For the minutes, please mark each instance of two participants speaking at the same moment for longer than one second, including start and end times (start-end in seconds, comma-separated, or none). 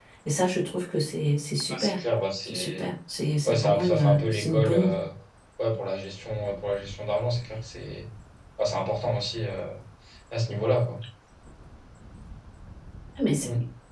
3.4-4.8